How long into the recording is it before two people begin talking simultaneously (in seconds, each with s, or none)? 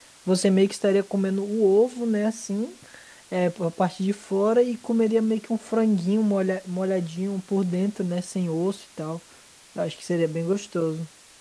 none